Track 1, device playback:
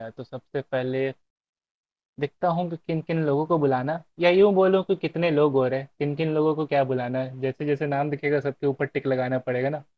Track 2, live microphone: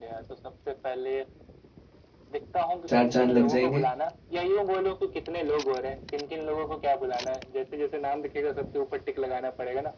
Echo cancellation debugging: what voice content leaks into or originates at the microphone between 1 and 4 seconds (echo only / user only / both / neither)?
both